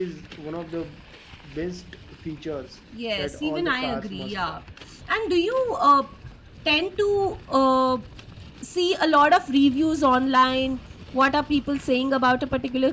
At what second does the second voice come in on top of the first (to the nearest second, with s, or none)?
3 s